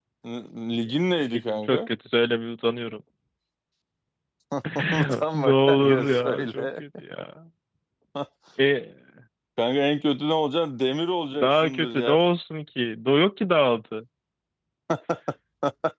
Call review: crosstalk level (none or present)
present